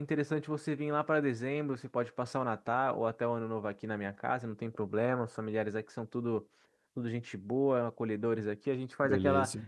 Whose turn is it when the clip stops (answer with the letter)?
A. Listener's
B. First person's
B